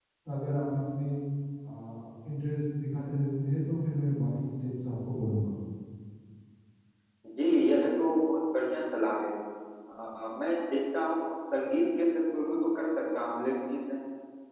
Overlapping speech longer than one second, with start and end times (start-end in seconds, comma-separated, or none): none